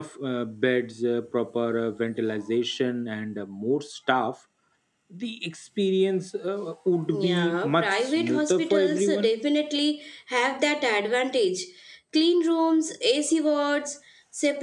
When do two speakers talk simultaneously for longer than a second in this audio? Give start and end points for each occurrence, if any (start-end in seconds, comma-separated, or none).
7.2-9.3